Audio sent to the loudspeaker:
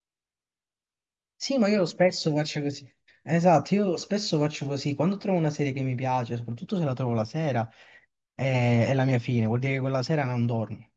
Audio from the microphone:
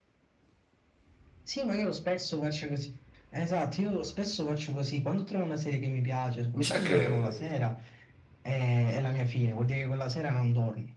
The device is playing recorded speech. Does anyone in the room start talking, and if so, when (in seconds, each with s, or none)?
6.5 s